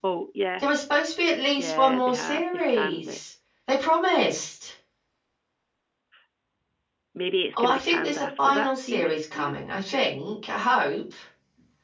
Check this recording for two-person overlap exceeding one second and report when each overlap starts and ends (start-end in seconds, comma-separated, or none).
1.6-3.2, 7.6-9.6